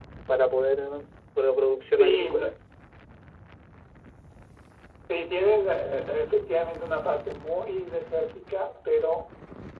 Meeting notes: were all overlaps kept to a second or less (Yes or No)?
Yes